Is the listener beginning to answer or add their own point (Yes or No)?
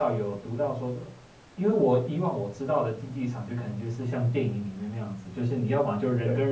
No